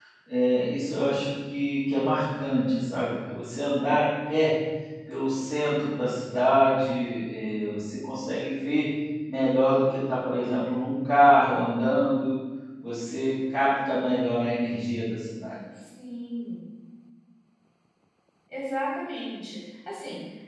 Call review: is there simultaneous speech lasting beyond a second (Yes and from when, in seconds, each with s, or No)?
No